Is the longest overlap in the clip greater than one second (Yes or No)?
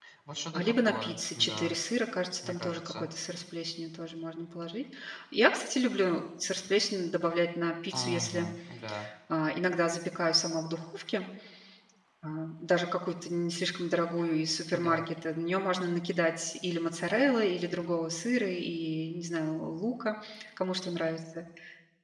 Yes